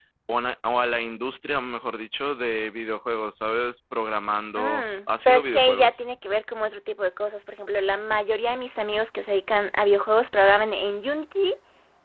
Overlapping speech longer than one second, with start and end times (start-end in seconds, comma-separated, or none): 4.6-5.9